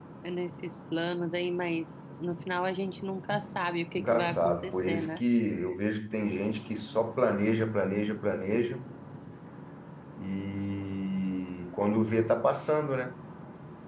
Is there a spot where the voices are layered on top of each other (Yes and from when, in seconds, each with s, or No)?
Yes, from 4.0 s